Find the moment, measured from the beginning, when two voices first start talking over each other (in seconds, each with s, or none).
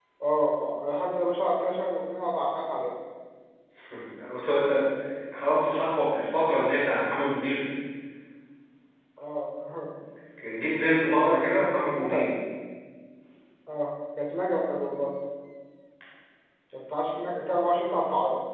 11.0 s